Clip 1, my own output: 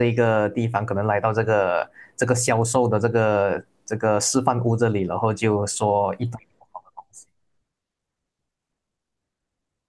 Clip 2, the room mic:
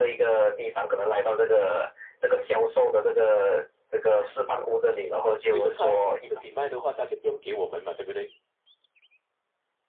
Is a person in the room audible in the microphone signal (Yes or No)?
Yes